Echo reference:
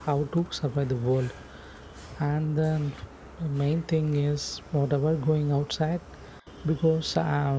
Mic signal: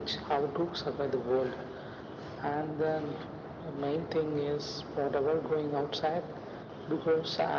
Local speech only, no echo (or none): none